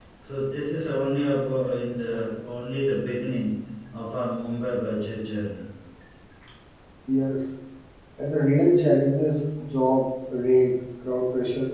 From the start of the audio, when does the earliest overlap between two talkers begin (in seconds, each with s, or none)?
none